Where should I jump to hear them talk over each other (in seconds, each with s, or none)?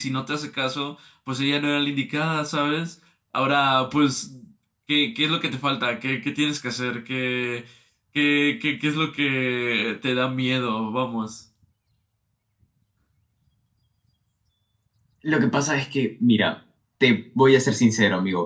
none